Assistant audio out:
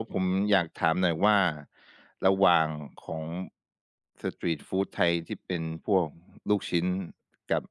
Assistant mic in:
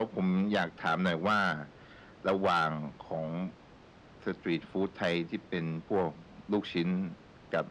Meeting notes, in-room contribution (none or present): none